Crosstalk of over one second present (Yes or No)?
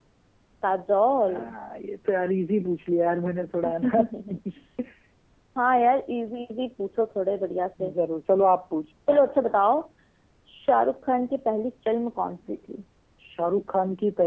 No